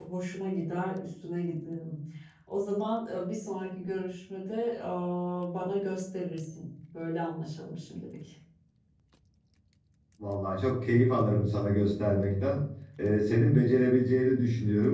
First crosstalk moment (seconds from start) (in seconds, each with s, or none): none